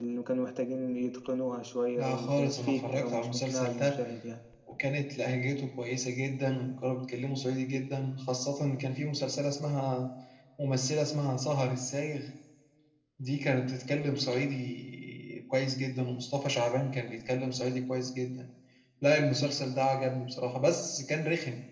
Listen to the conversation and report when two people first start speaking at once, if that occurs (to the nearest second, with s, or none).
2 s